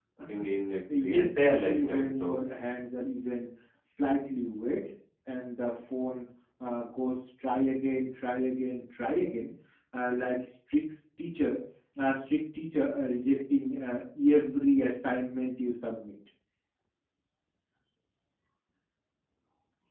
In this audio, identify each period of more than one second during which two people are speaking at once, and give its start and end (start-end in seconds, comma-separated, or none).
1.0-2.4